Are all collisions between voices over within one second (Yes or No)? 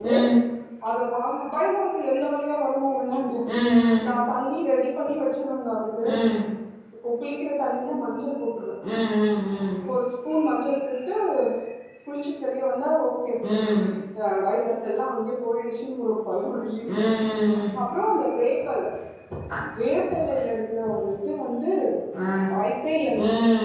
Yes